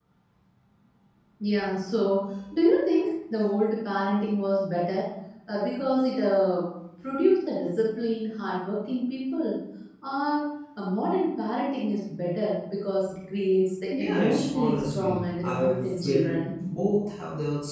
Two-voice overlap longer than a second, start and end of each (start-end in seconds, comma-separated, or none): 13.9-16.4